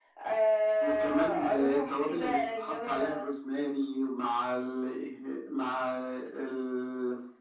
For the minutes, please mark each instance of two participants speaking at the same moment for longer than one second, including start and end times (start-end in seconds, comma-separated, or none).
0.8-3.1